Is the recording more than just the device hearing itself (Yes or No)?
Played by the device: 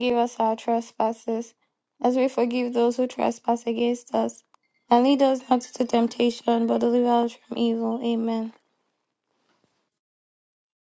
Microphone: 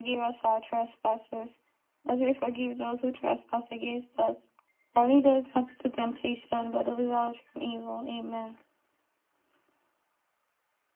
No